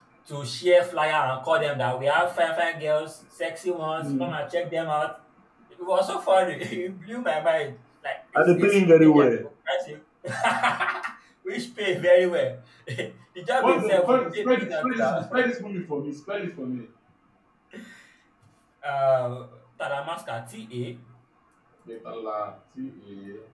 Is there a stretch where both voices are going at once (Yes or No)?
Yes